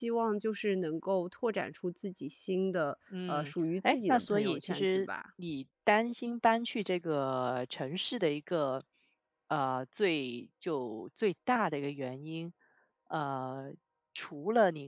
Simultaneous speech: Yes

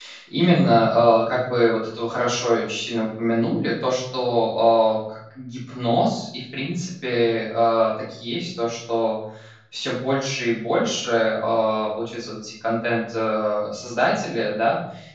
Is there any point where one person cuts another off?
No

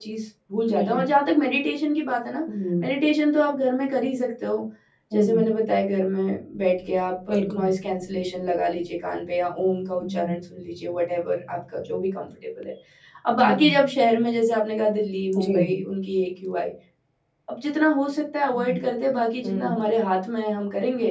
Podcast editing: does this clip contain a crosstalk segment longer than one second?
No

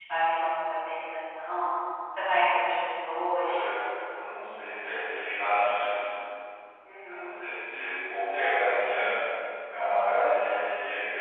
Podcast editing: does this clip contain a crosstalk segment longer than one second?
No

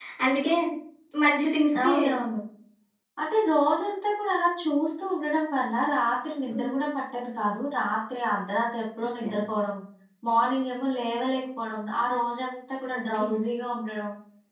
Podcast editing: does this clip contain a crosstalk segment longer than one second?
No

